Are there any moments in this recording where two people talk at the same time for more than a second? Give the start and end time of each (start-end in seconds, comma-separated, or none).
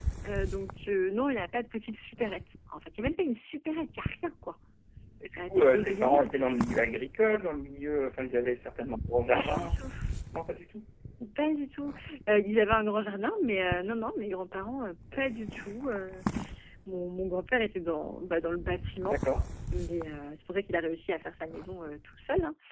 5.4-6.7